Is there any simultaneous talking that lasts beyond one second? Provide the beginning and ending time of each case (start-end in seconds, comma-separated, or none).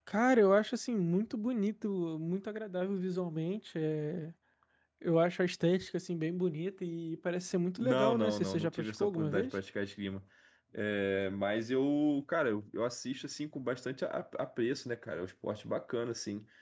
7.8-9.6